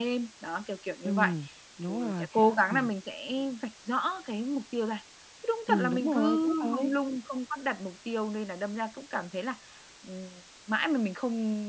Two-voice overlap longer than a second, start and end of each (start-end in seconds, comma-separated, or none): 5.7-6.9